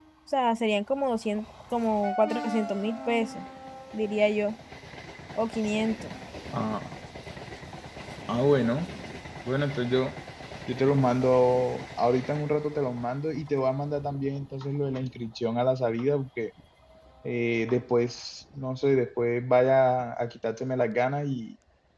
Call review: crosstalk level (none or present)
none